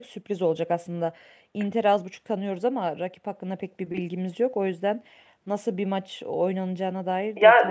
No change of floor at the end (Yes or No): No